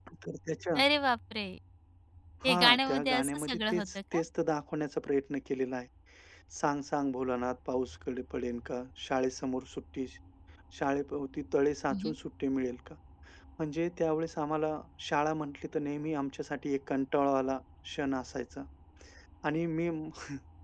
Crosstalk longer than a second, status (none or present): present